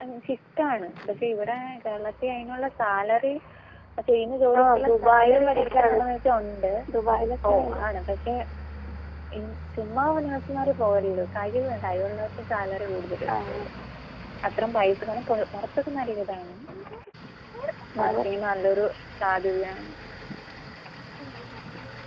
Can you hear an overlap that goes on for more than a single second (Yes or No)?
Yes